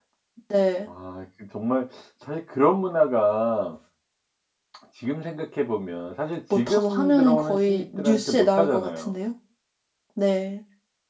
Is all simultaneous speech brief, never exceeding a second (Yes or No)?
No